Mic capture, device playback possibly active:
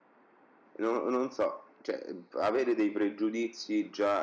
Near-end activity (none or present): present